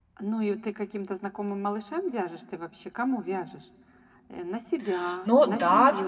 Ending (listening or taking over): taking over